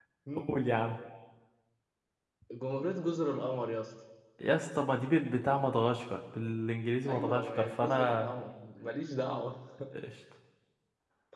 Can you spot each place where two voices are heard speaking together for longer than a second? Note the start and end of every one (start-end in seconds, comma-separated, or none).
7.1-8.3